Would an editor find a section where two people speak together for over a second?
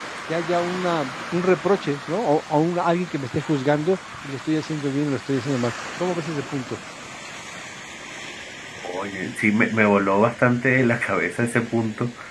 No

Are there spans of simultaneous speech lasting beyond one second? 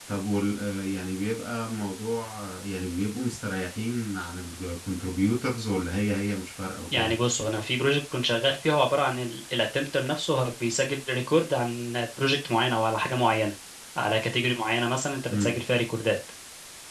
No

